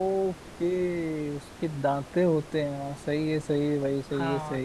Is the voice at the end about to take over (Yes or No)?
Yes